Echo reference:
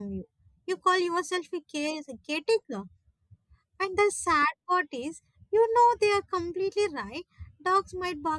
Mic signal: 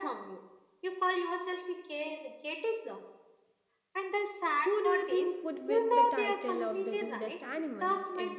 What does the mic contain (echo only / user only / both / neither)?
both